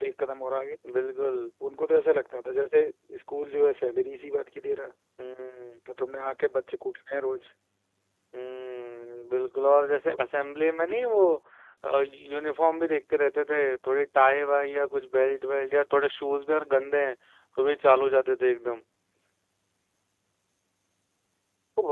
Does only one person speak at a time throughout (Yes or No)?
Yes